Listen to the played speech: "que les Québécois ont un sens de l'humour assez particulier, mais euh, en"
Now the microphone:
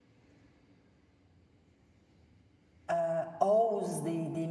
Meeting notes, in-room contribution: present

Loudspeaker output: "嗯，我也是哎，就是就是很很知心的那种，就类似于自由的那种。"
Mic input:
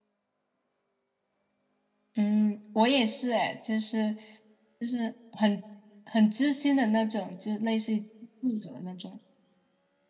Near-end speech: none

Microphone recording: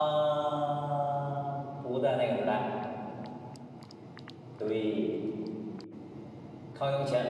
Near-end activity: none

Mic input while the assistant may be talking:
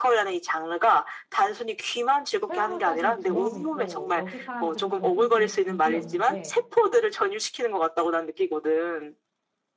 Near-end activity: present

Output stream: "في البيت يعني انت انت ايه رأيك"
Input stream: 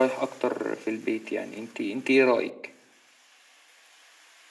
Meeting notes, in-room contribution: none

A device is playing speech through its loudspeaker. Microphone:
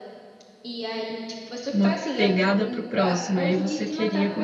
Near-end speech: present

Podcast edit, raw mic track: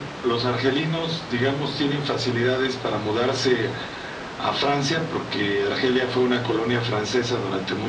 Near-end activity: none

